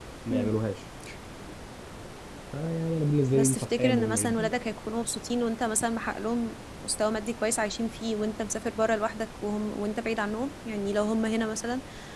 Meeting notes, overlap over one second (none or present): present